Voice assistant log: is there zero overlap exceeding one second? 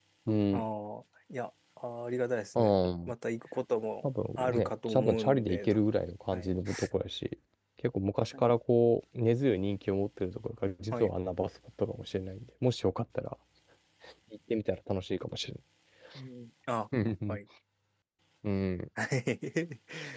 No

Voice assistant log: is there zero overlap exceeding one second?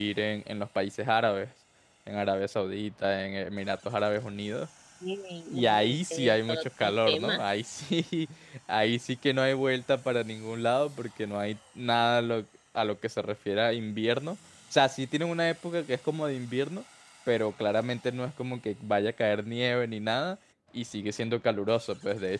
No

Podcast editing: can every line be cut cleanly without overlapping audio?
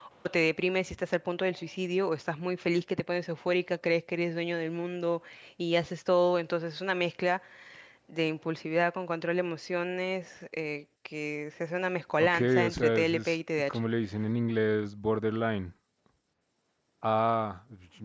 No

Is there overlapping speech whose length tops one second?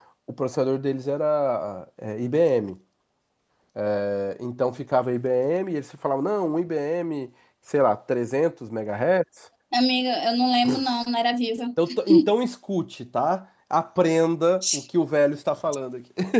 No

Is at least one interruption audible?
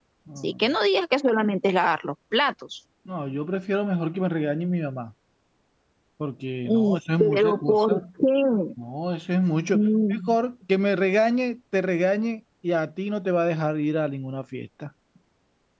Yes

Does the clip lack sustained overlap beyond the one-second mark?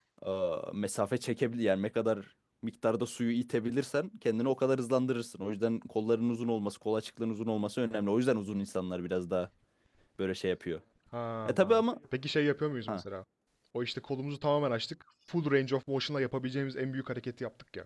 Yes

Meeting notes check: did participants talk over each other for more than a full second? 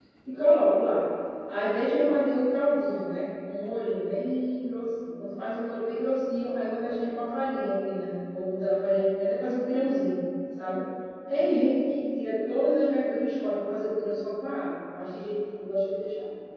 No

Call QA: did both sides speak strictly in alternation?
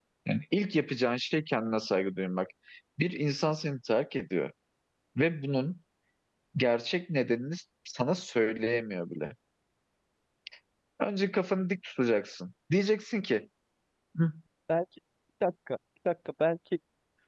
Yes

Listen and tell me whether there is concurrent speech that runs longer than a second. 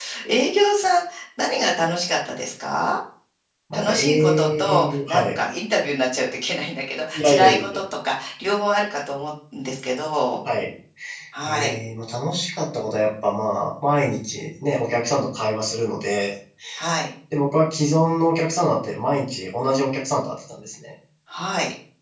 Yes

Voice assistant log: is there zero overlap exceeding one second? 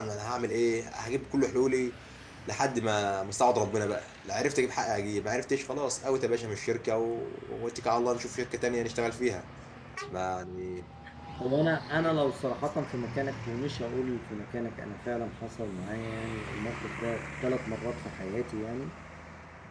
Yes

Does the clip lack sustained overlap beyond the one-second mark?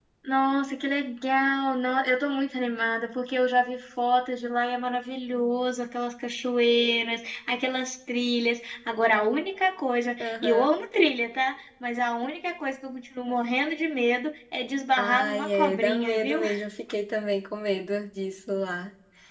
No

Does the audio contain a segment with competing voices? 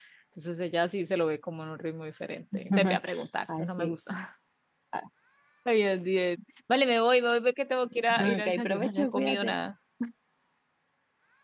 Yes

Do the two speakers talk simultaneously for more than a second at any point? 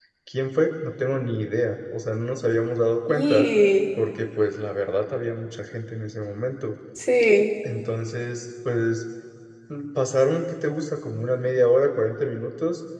No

